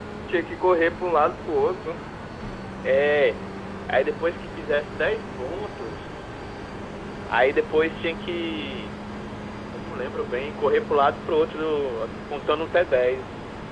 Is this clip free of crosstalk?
Yes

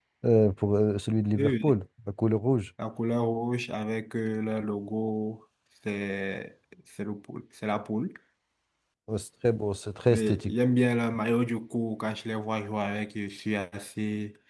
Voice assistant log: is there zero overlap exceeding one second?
Yes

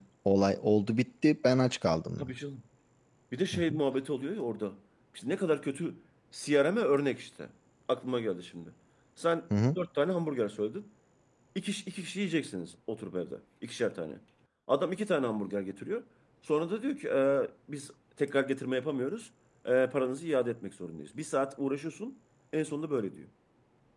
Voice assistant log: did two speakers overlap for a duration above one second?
No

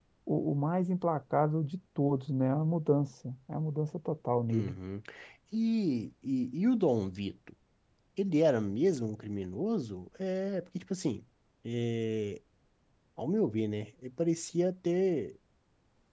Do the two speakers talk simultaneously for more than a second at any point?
No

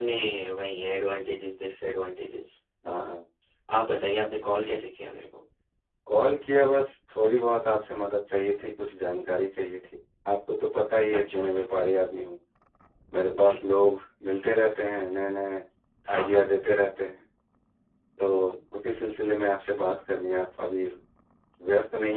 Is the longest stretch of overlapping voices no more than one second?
Yes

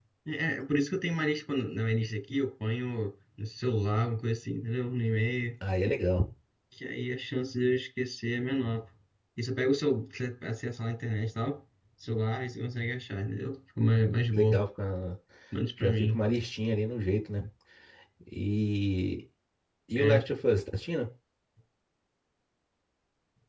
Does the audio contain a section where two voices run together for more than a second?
No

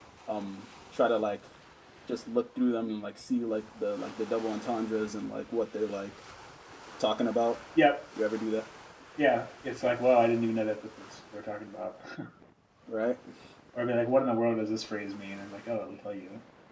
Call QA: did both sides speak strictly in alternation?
Yes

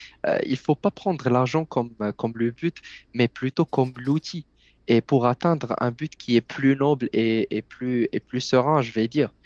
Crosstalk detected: No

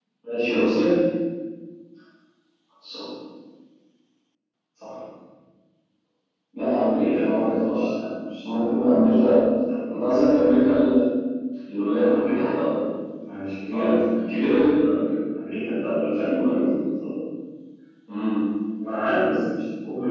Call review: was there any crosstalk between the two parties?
Yes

